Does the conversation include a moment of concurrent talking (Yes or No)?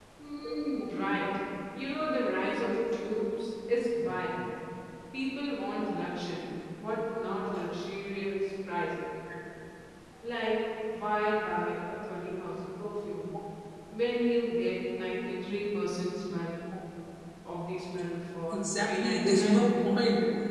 Yes